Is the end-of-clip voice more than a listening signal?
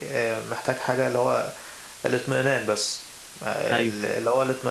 No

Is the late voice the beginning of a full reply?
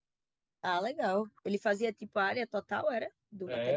Yes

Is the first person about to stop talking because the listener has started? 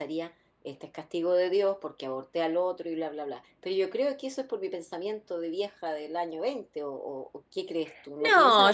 Yes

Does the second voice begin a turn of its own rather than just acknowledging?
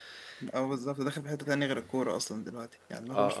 Yes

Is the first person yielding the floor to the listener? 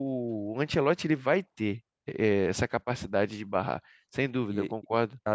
Yes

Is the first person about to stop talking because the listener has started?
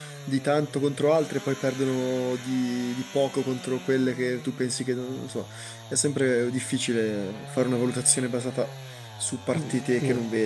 Yes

